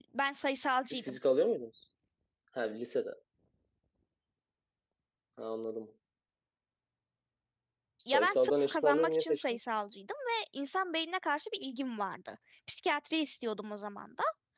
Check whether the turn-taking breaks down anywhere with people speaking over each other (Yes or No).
Yes